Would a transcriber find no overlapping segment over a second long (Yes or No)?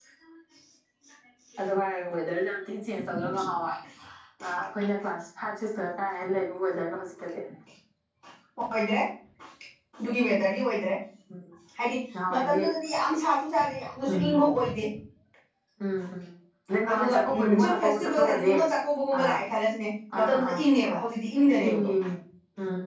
No